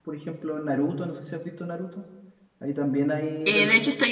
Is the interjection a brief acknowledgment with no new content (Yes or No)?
No